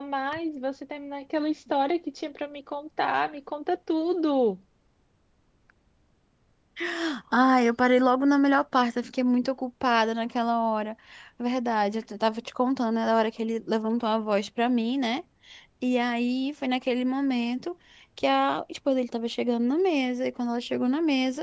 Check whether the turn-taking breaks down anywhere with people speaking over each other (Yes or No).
No